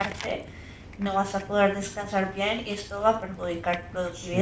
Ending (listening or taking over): taking over